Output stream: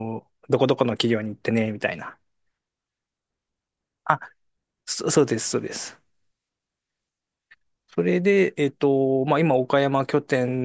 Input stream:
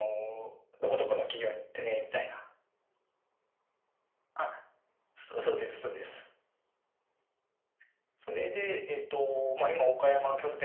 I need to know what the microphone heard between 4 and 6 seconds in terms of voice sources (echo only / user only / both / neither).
echo only